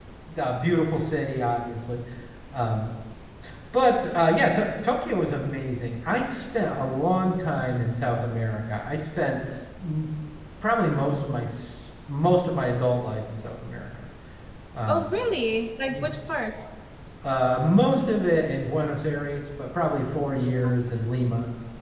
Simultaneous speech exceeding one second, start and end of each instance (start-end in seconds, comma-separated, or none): none